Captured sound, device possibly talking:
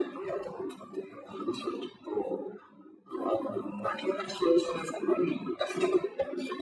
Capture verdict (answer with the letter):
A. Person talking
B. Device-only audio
B